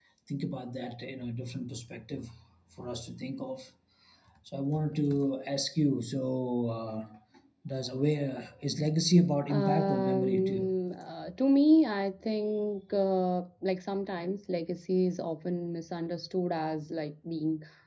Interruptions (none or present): present